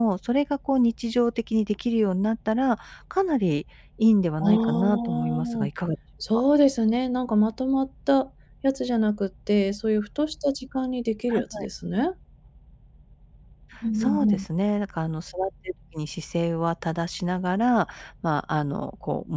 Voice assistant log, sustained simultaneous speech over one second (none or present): present